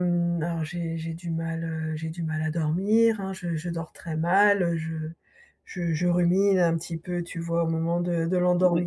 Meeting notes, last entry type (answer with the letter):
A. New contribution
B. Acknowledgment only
B